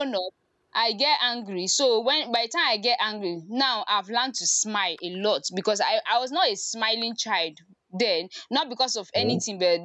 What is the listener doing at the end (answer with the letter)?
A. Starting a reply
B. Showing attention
B